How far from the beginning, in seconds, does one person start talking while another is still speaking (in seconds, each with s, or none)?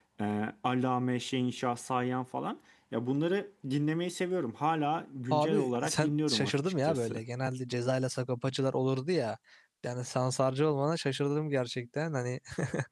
5.3 s